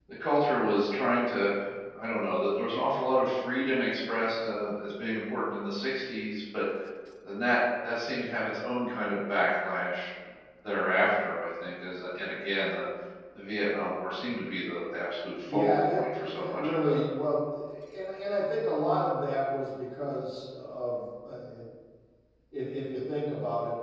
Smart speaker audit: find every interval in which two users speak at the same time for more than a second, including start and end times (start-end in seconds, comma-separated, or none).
15.5-17.0